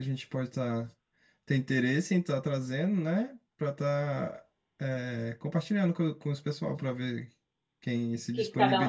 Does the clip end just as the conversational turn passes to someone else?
Yes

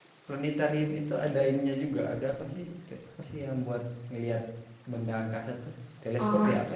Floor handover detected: Yes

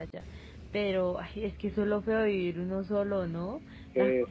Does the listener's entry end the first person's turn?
Yes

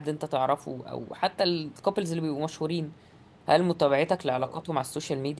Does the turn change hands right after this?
No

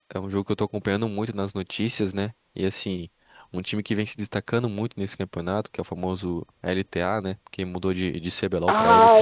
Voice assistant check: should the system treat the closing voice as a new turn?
Yes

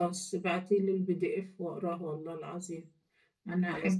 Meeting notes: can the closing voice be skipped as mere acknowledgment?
Yes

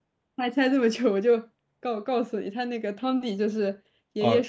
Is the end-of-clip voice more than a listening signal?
No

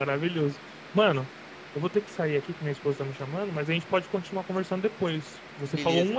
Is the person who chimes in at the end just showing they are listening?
Yes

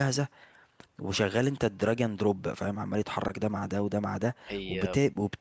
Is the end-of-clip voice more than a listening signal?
No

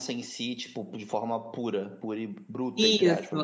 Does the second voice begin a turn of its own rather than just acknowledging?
Yes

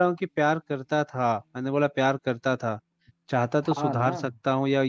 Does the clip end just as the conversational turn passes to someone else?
No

